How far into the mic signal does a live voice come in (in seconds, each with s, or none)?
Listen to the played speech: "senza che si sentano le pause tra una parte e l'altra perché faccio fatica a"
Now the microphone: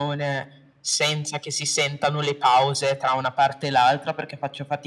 none